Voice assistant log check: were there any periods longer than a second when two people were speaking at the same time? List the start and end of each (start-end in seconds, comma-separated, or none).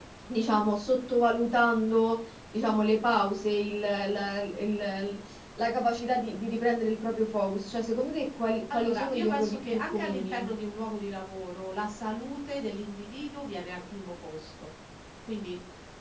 8.7-10.5